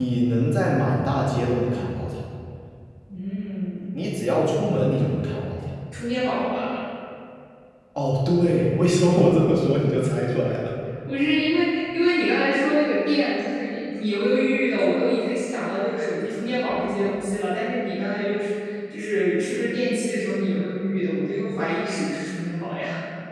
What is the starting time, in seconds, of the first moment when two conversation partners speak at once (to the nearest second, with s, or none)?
none